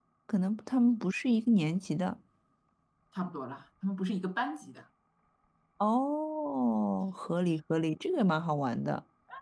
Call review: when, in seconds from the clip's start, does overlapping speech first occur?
none

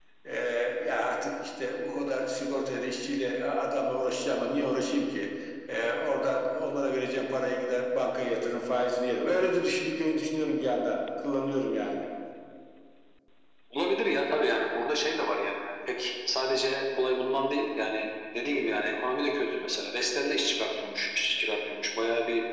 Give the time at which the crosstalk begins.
none

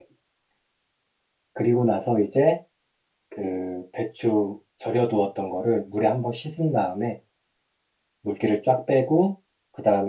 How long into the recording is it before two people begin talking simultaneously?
none

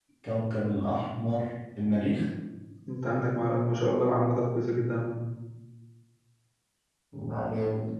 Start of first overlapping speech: none

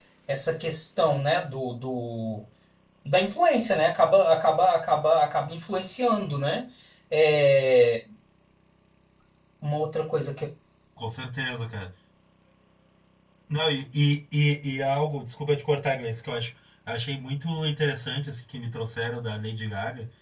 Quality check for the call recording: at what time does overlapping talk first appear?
none

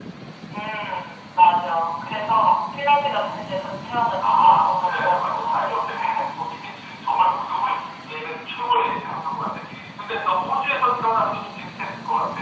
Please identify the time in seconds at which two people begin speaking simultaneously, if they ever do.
4.3 s

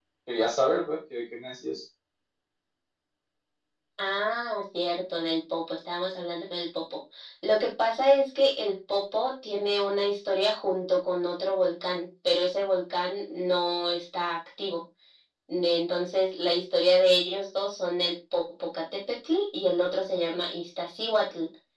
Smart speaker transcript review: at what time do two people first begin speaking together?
none

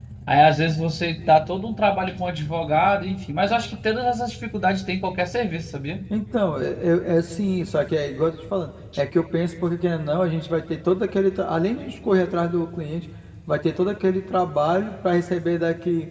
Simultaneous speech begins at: none

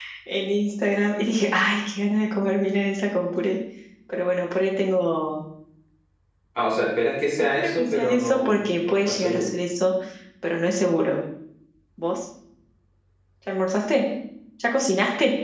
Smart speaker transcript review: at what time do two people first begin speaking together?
7.5 s

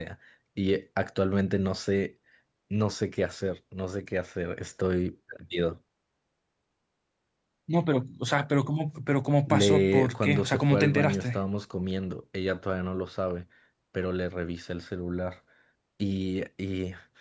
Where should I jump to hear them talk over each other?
9.5 s

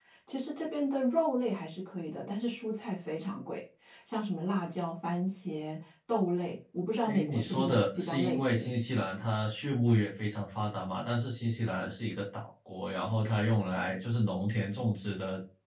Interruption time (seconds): 7.0 s

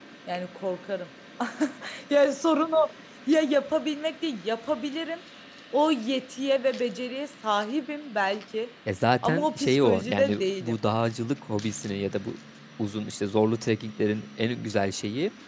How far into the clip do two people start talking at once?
9.2 s

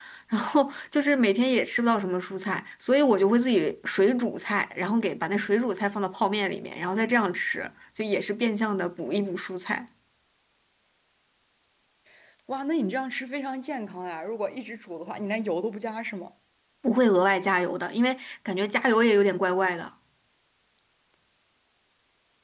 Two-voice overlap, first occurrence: none

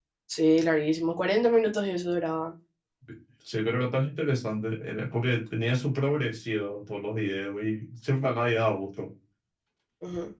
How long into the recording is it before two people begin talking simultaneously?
none

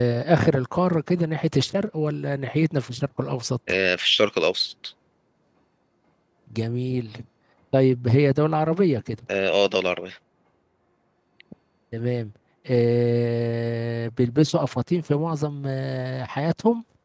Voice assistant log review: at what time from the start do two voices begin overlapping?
none

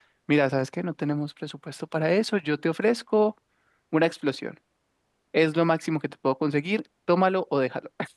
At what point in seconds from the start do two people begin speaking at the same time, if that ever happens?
none

